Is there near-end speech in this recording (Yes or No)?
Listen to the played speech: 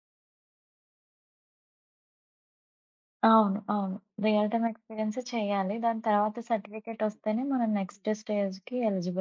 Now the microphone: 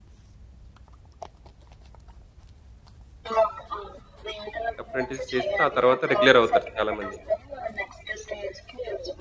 Yes